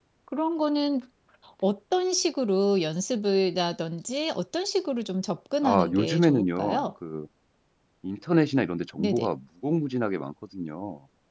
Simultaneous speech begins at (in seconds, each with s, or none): 5.6 s